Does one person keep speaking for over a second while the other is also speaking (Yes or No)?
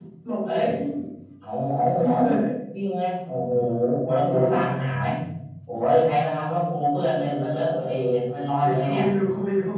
No